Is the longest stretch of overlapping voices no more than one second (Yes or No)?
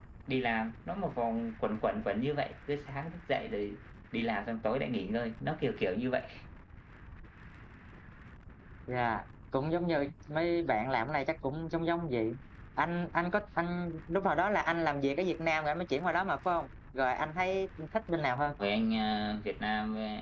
Yes